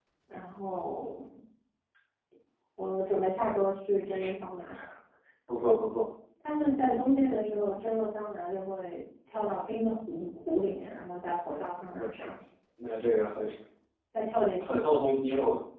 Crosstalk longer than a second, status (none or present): none